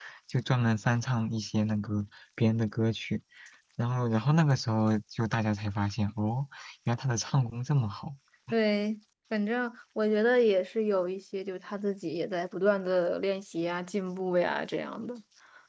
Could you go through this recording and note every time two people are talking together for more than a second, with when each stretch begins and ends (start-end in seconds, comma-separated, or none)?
none